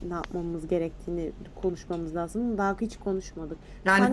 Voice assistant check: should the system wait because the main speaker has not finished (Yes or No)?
No